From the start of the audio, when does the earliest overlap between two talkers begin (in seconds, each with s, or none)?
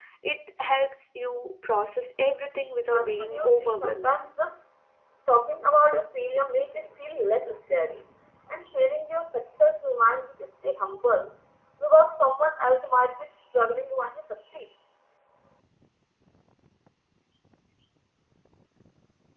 2.9 s